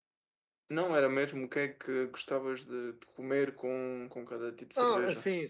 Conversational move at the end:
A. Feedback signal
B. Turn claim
B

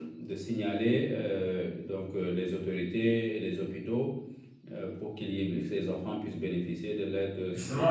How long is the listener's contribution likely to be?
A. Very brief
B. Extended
B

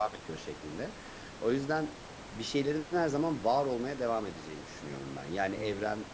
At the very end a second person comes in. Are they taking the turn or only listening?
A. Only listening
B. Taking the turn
A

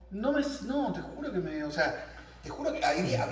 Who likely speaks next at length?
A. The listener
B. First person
B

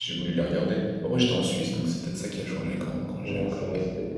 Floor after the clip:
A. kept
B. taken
B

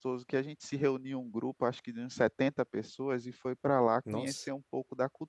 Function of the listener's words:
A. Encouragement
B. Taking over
A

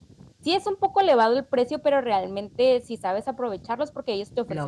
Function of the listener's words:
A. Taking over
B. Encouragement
B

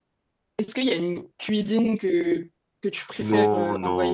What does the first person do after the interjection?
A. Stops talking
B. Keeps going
A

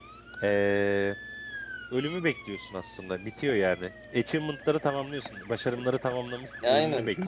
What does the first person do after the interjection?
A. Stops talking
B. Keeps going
A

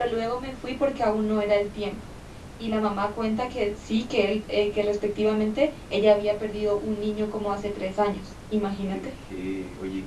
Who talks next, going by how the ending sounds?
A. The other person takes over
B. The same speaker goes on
A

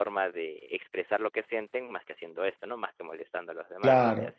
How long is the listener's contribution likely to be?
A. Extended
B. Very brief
A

